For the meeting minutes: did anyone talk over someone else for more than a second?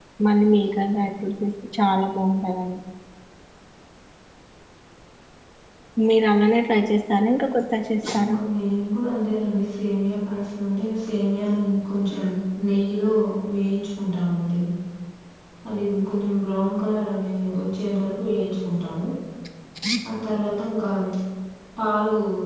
No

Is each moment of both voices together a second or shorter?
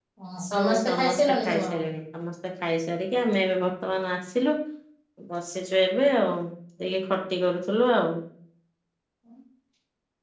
No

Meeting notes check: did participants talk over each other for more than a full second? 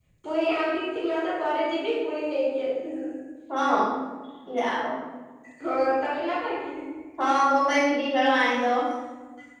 No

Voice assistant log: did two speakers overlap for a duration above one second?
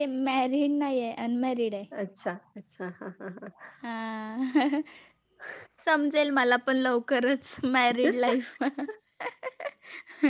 No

